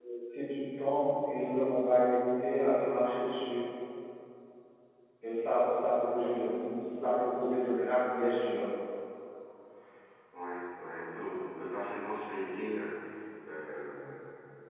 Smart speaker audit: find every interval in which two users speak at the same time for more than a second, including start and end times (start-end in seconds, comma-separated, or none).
none